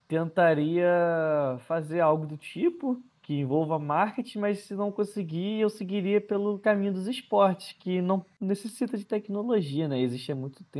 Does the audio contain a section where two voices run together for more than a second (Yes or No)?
No